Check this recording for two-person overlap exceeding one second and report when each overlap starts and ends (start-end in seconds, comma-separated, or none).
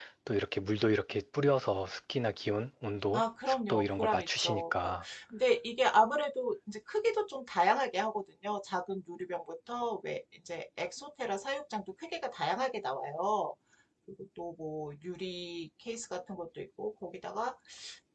3.1-5.0